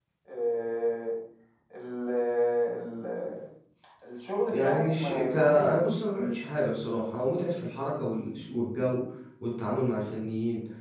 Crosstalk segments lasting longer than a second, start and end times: 4.5-5.7

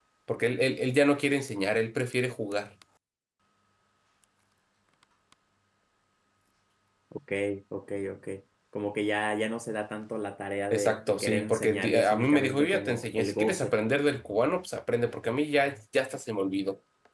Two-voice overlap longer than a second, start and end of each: 10.7-13.8

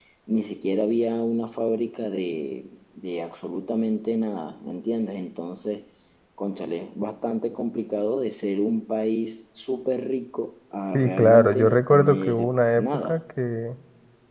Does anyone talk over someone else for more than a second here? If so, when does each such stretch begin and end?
10.9-13.2

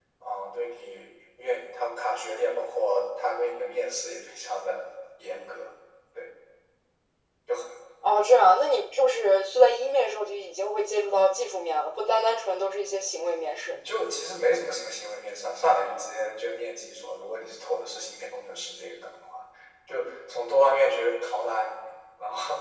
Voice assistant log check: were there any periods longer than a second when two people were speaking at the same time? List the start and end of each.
none

